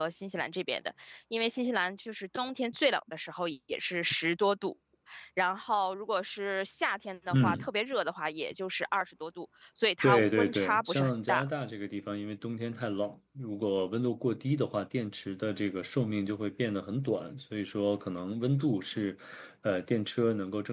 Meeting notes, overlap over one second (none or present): present